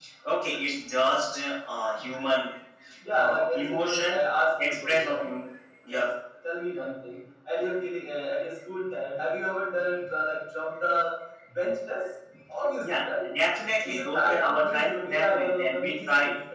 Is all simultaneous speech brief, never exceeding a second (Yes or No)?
No